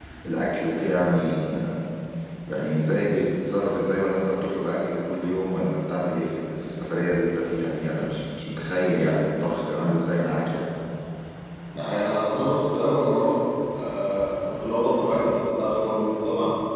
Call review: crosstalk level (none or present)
none